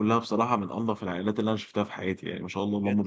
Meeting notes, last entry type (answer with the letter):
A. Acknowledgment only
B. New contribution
B